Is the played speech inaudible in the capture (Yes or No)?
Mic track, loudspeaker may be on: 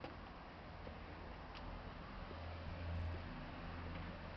Yes